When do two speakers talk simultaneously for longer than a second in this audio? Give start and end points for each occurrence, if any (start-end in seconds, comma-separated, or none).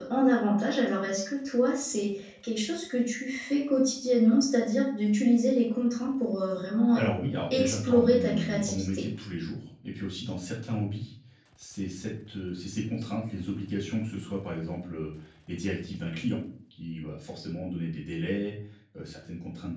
7.5-9.1